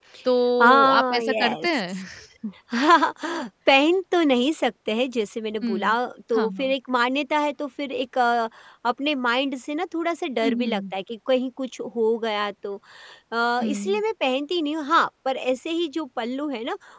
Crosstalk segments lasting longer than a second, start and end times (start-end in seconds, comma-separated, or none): 0.6-1.9